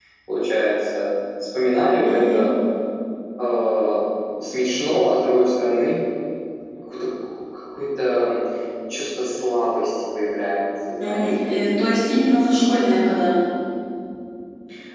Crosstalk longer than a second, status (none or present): none